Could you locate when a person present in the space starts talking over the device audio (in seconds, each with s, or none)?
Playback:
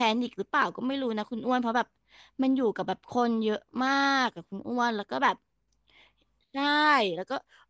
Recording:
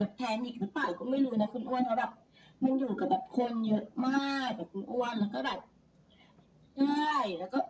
none